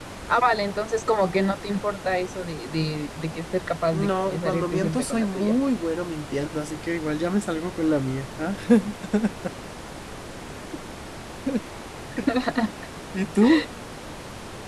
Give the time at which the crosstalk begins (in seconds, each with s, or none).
3.9 s